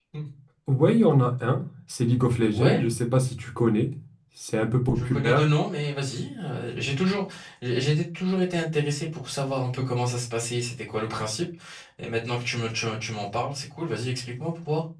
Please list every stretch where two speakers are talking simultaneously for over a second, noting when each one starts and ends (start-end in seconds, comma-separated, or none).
none